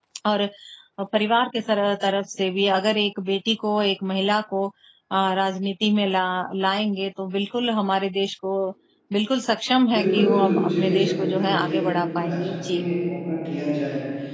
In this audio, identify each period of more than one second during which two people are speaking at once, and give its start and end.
9.9-12.8

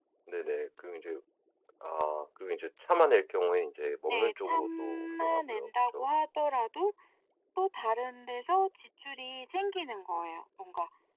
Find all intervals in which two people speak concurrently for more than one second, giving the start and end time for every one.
4.1-6.1

